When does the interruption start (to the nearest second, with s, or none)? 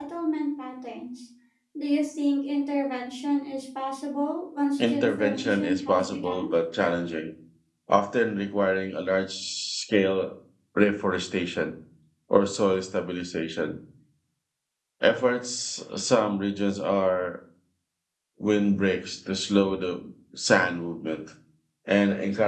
5 s